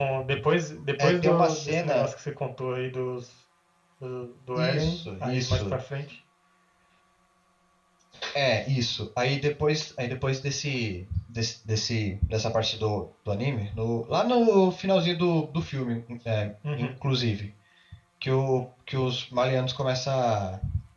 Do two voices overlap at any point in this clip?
Yes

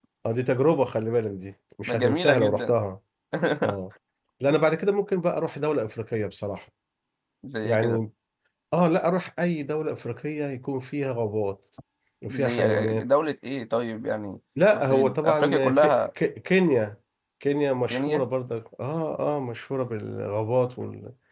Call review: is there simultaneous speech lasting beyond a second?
Yes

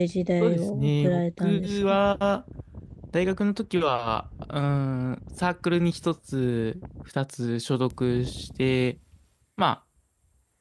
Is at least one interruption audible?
Yes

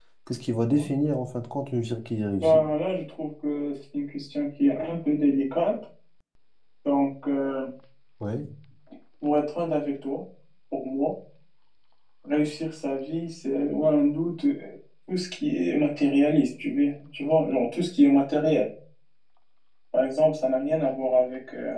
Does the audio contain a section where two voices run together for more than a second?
No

